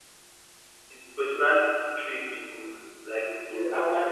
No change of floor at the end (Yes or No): No